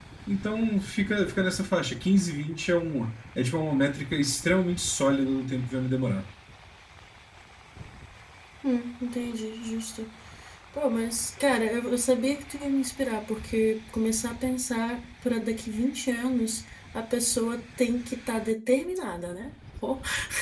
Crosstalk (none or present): none